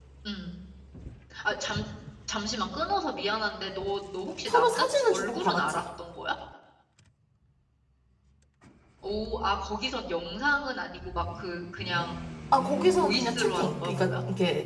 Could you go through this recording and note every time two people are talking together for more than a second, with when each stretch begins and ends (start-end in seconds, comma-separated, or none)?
4.5-5.8, 12.7-14.1